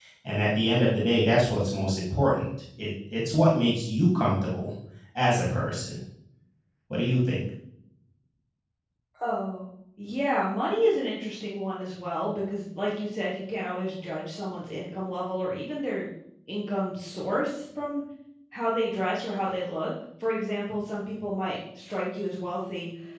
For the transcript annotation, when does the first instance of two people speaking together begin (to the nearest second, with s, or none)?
none